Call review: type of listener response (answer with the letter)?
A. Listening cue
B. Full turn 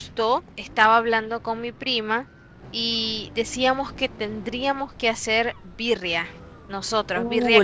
B